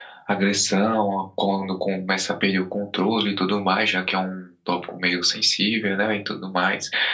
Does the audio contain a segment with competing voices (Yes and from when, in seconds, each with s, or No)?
No